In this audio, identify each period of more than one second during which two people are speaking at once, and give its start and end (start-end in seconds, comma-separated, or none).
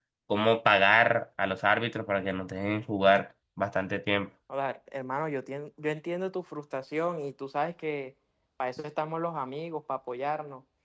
none